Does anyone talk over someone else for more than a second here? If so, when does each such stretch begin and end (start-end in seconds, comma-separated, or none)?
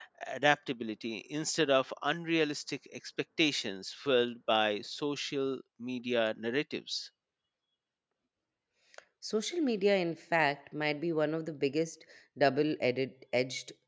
none